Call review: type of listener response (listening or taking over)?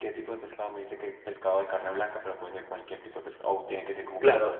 taking over